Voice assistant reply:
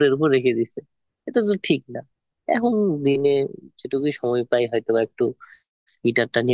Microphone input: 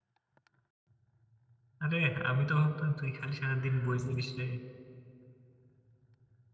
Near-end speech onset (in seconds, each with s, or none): 1.8 s